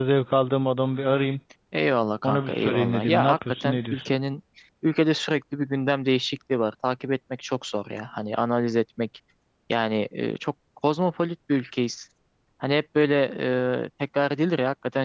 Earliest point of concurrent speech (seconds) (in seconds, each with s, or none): 2.2 s